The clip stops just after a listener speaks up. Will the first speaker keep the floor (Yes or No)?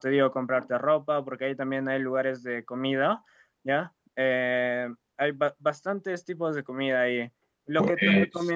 Yes